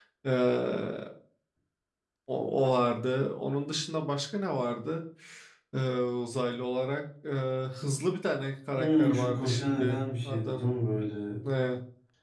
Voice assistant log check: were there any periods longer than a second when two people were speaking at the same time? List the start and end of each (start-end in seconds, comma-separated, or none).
8.8-10.8